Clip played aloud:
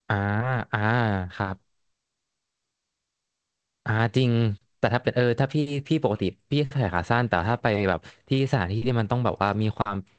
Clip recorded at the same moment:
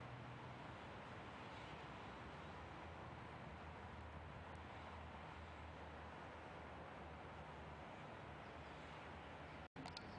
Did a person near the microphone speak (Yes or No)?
No